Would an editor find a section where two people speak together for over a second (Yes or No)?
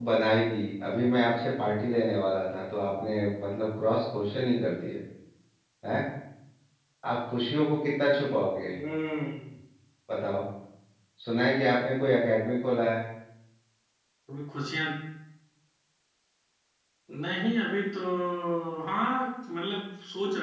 No